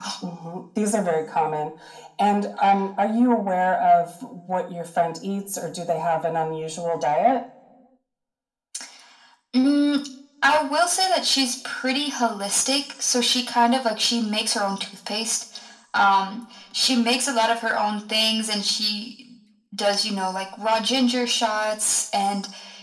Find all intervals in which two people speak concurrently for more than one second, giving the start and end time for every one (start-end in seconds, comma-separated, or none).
none